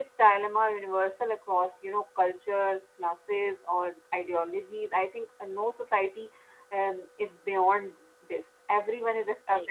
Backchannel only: Yes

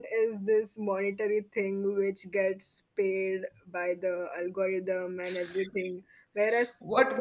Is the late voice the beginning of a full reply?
Yes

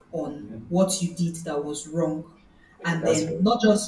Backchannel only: Yes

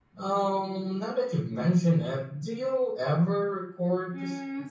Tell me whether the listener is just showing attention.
No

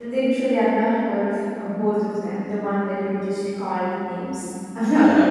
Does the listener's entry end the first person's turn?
Yes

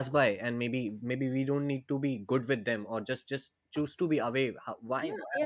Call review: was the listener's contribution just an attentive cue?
No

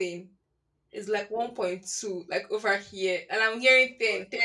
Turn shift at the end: Yes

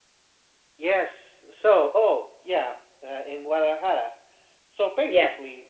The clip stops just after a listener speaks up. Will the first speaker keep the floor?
Yes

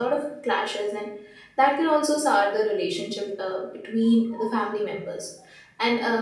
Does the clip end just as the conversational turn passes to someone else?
No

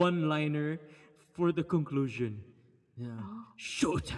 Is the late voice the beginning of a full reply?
No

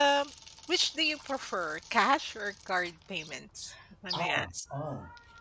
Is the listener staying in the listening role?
No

